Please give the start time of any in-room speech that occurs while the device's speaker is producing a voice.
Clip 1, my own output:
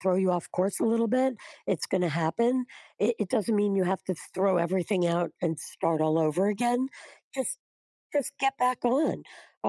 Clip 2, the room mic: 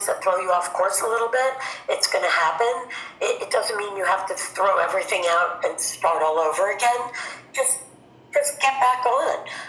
none

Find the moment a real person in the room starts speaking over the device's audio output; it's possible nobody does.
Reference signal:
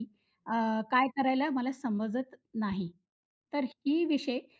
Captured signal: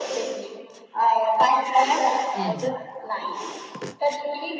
2.4 s

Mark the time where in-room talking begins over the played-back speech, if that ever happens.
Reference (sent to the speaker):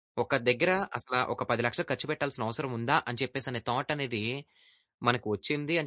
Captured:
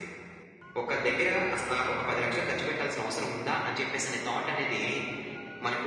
none

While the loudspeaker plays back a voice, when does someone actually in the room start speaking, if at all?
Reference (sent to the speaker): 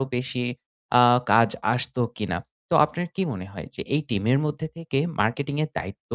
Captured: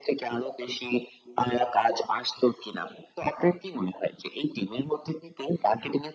none

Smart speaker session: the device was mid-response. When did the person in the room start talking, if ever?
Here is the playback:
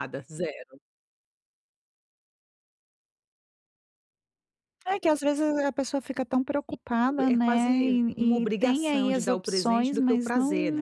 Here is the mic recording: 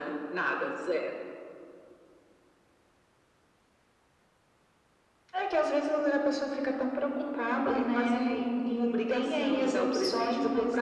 none

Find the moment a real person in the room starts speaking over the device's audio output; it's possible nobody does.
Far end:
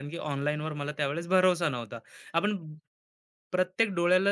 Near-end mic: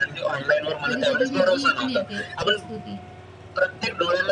0.9 s

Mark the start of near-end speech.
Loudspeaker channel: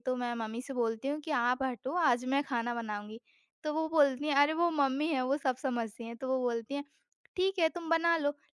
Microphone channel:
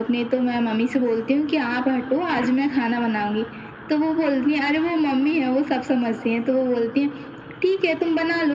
none

